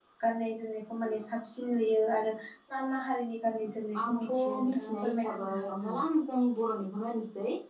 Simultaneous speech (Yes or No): Yes